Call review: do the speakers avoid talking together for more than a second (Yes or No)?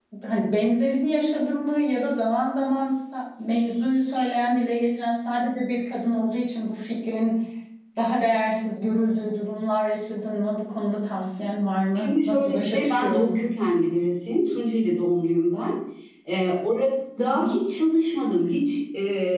No